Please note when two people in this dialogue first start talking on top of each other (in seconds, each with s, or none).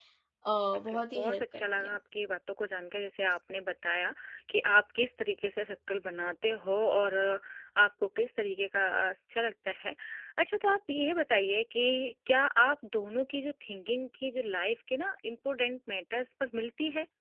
0.8 s